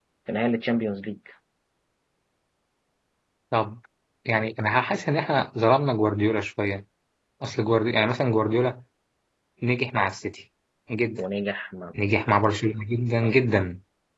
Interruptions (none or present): none